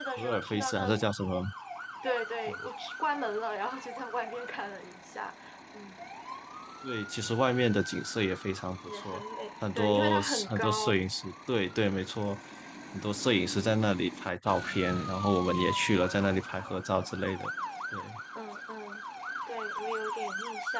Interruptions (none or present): present